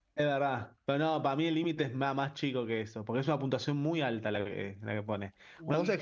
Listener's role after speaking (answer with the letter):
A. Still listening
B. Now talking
A